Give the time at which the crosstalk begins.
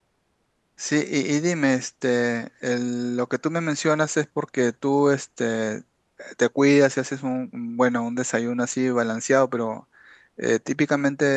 none

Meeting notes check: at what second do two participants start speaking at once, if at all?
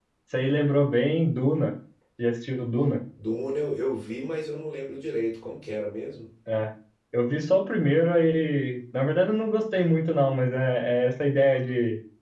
none

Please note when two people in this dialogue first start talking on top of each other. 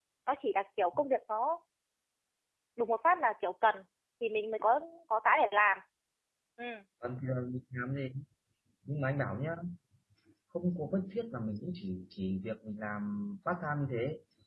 none

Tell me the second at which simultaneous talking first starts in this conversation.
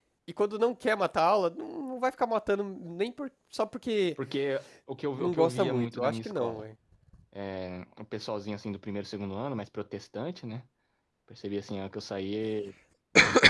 5.2 s

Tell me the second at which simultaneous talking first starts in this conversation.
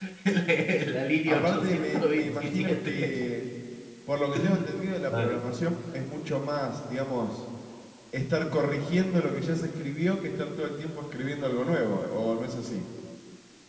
1.3 s

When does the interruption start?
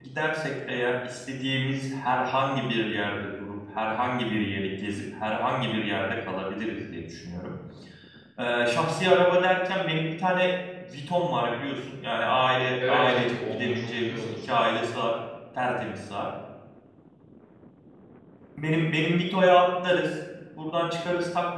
12.8 s

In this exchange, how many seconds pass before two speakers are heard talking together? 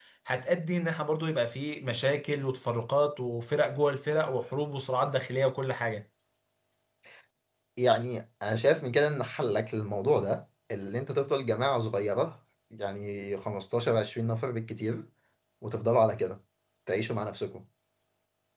none

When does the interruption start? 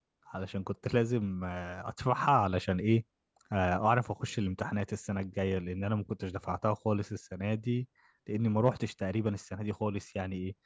none

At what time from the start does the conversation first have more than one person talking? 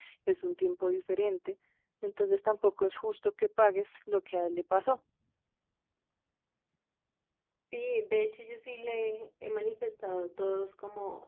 none

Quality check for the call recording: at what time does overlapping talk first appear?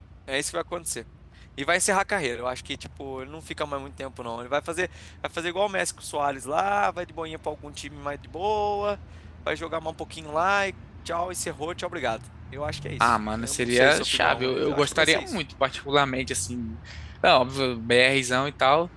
13.0 s

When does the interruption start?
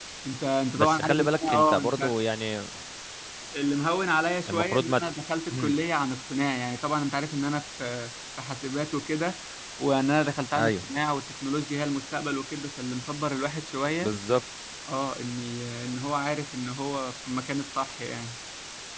0.8 s

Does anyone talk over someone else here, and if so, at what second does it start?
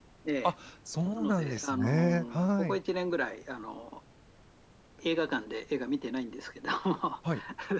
1.2 s

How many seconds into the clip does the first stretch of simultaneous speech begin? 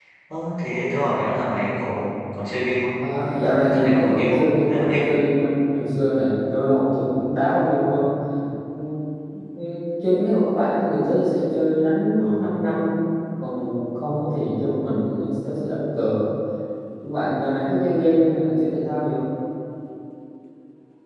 3.4 s

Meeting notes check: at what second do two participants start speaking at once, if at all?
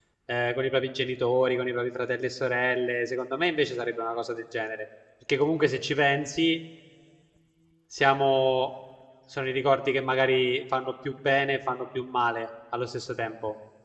none

